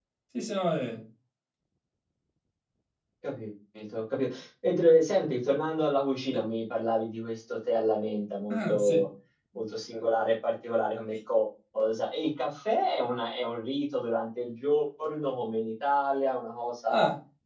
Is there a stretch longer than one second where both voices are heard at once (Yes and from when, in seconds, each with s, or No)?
No